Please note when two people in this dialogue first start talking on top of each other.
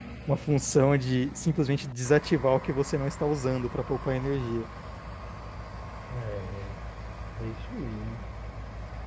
none

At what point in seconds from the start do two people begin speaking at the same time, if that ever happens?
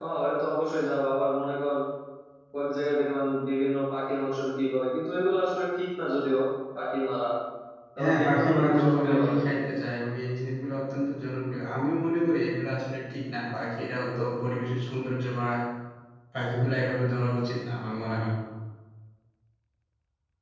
8.0 s

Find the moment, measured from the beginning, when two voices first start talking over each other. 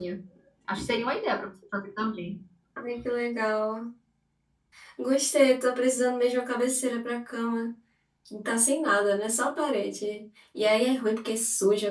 none

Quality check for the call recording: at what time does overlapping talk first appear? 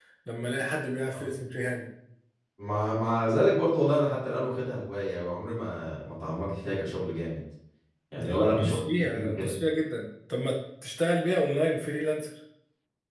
8.2 s

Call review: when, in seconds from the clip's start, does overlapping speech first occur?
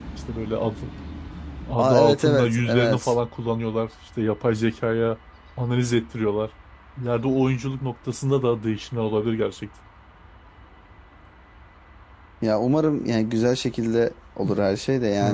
1.8 s

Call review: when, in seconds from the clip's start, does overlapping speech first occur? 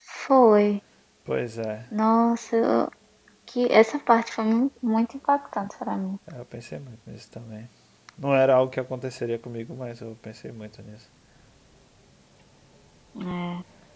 none

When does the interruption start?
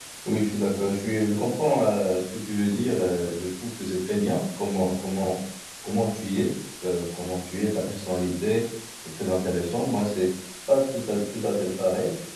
none

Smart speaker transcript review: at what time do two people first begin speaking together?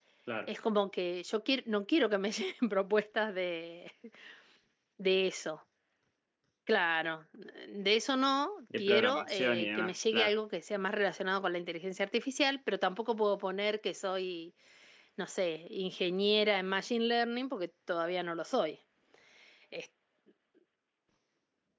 8.7 s

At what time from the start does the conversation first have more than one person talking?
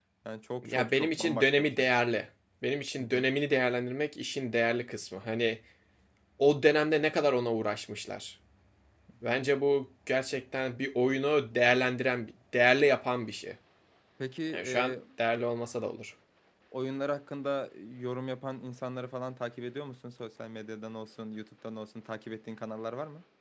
0.6 s

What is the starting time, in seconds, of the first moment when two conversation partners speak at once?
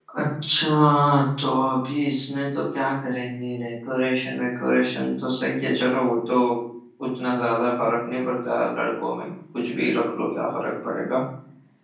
none

